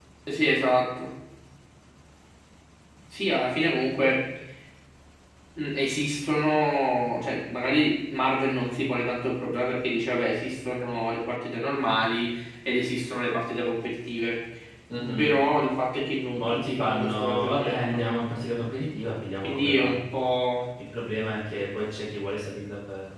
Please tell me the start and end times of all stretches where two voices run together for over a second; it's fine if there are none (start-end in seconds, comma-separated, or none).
16.4-18.0